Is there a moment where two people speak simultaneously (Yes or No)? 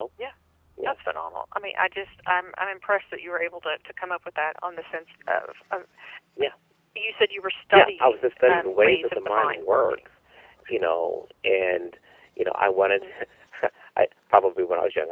Yes